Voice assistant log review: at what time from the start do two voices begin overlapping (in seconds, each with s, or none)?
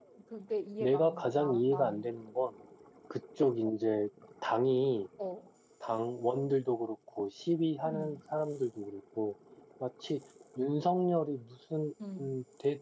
0.8 s